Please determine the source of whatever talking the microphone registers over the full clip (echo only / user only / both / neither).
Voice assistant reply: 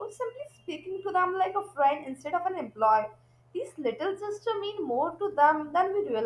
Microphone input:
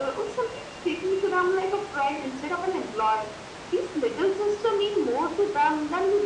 echo only